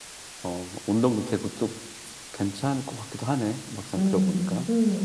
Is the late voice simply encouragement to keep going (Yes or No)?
No